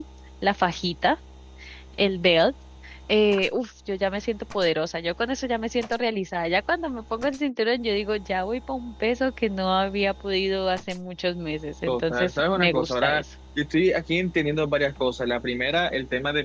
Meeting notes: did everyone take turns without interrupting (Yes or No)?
No